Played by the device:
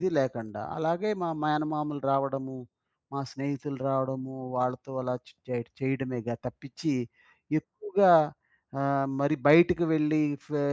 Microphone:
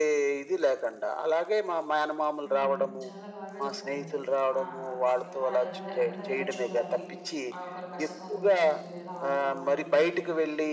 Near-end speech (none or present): present